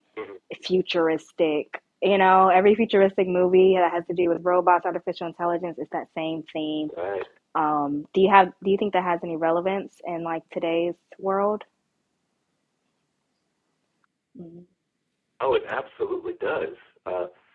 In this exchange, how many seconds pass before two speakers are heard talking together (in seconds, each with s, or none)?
none